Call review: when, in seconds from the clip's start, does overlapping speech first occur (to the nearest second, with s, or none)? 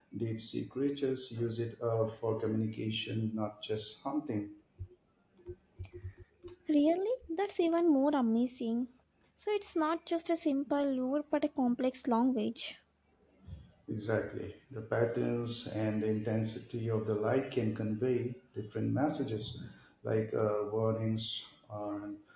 none